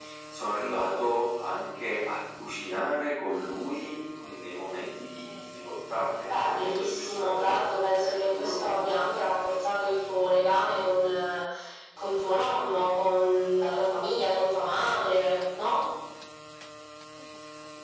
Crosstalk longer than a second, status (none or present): present